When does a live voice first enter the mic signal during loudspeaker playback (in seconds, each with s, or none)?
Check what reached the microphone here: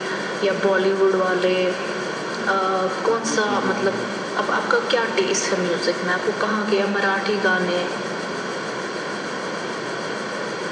3.1 s